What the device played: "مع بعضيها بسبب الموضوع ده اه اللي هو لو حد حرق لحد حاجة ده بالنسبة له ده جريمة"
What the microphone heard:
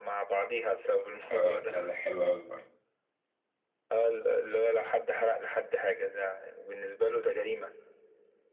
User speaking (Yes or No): Yes